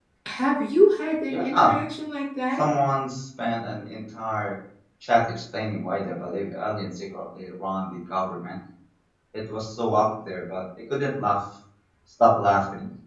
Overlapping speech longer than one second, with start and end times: none

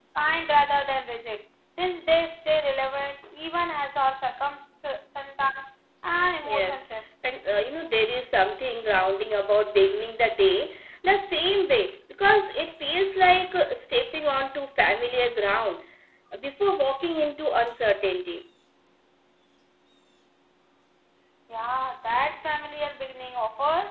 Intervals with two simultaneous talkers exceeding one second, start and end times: none

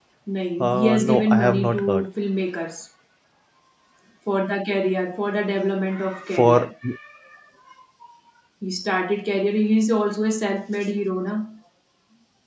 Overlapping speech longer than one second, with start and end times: 0.6-2.1

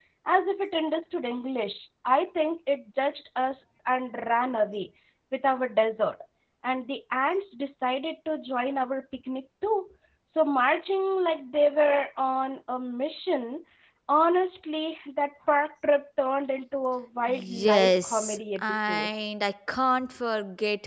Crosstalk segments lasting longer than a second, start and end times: 17.3-19.1

